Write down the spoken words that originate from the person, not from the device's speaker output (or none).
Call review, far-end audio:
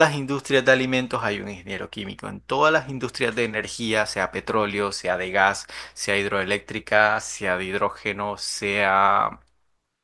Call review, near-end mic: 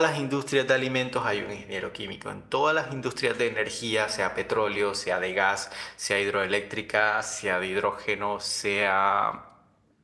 none